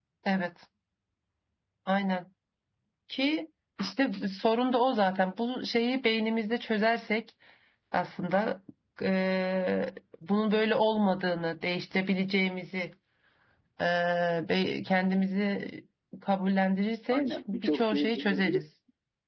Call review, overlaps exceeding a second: present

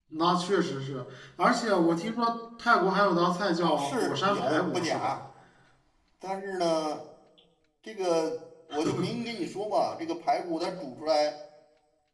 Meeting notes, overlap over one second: present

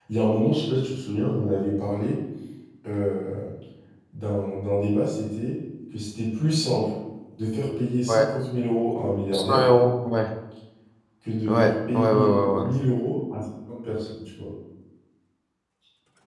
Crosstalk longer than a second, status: present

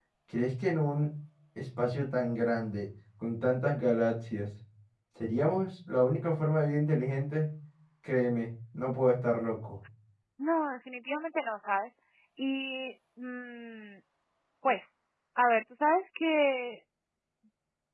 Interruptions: none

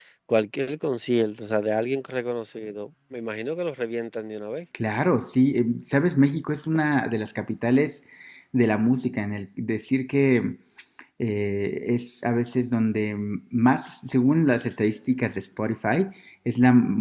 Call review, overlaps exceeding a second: none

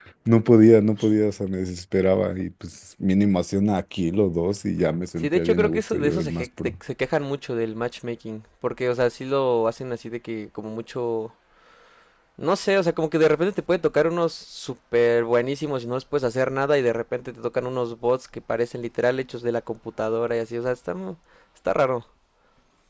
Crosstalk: present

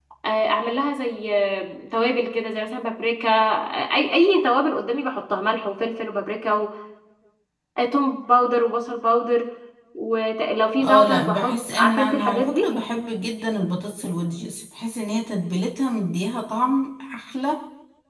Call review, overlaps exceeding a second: present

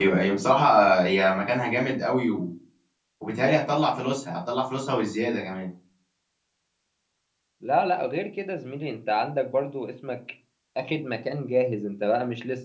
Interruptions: none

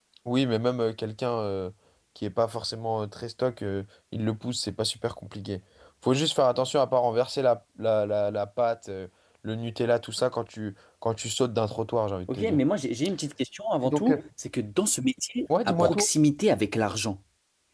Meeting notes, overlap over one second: none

